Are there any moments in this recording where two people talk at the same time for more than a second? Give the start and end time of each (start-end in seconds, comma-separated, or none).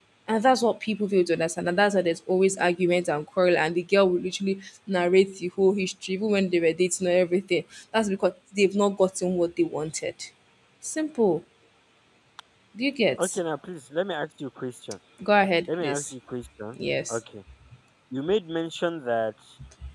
none